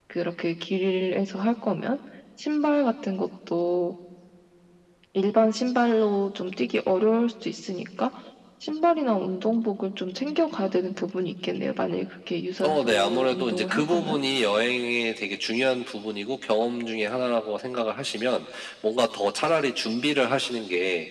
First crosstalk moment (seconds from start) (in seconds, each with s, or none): 12.6 s